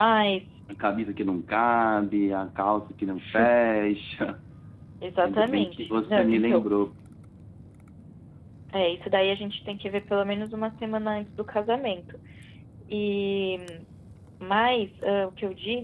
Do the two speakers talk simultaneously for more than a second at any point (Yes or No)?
Yes